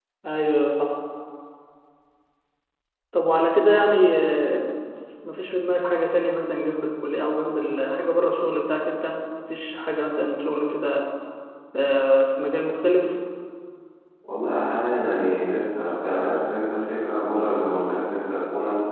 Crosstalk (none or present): none